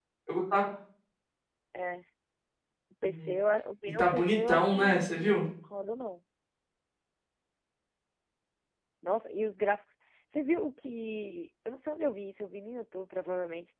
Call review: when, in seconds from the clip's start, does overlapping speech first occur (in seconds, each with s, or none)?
4.0 s